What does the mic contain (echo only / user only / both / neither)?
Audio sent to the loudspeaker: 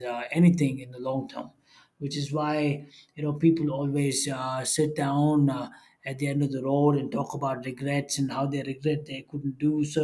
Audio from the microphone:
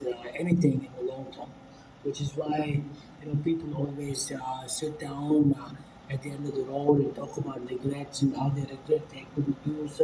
echo only